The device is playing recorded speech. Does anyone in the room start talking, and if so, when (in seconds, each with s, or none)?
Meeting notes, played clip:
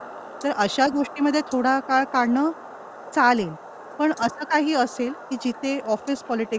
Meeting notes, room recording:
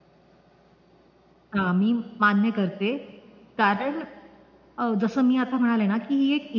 1.6 s